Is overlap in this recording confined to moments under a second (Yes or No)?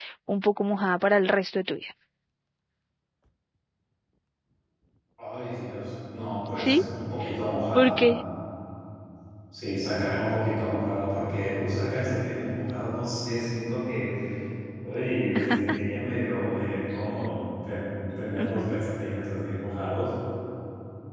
Yes